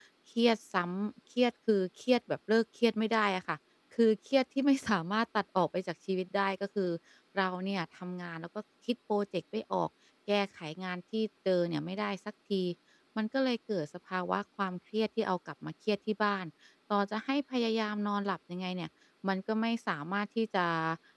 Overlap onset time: none

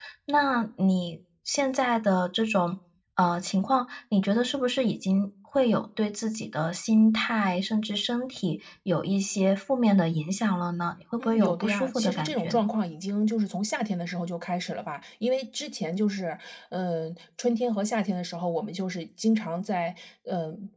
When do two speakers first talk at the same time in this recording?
11.2 s

